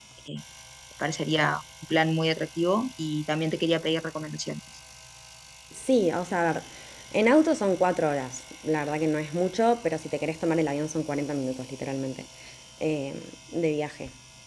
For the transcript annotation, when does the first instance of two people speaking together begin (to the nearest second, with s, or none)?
none